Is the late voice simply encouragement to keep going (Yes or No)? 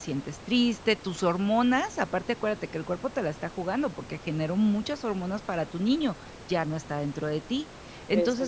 Yes